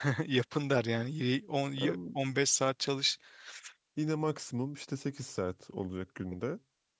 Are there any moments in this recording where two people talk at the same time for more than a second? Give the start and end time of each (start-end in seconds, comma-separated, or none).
none